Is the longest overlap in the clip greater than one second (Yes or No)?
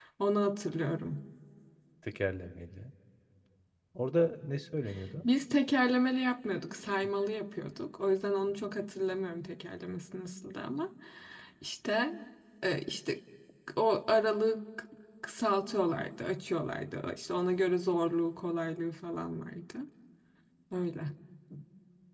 No